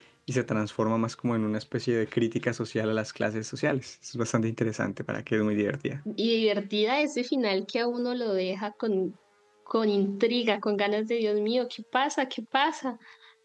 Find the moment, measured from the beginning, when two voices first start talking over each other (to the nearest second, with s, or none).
none